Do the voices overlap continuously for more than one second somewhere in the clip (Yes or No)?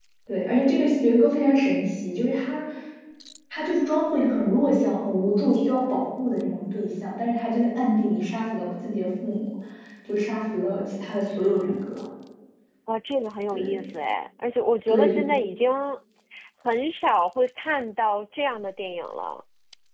No